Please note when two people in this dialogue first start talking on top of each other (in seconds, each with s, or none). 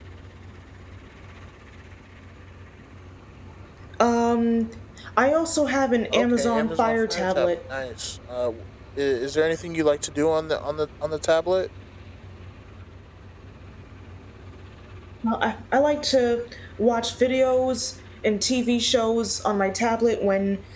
6.1 s